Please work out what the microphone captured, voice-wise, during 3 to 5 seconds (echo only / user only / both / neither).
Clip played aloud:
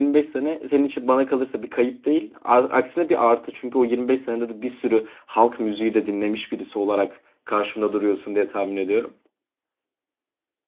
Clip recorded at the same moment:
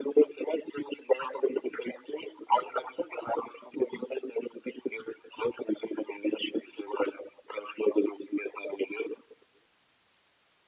echo only